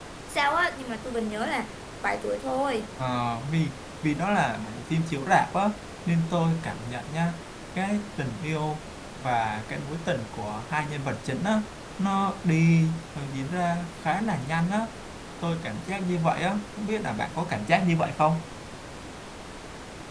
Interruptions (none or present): none